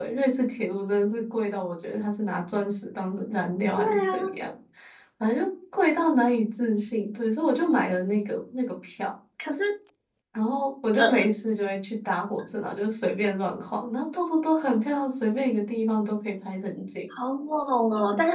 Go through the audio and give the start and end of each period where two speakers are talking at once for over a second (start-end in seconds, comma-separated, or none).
none